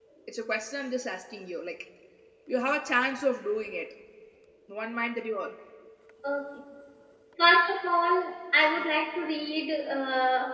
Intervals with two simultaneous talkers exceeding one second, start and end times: none

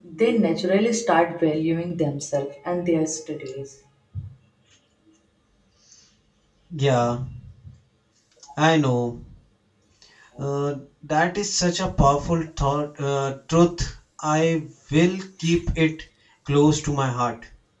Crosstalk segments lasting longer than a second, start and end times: none

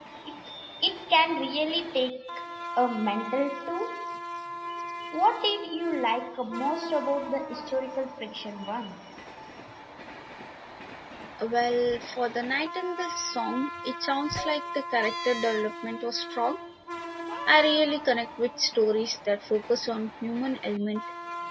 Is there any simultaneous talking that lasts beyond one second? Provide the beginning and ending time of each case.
none

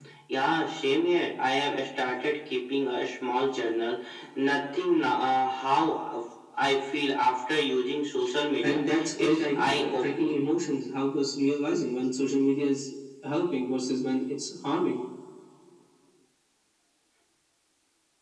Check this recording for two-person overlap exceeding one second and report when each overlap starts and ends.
8.6-10.4

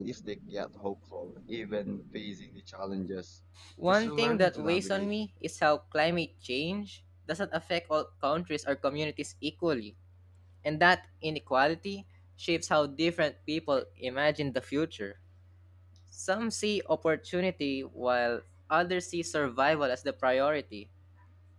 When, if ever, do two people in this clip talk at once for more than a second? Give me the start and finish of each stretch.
3.9-5.1

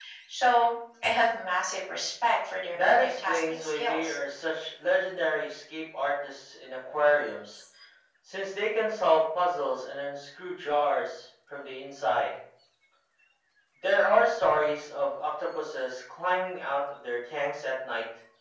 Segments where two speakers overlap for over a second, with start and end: 2.7-4.2

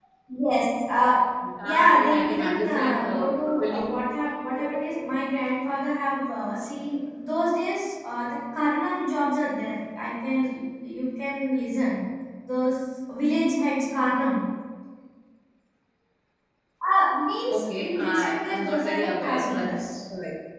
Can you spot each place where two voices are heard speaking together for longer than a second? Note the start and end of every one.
1.6-3.9, 17.5-19.7

